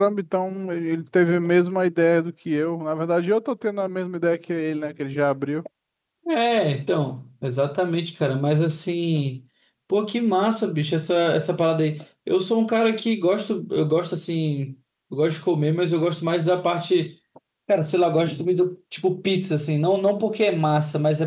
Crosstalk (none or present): none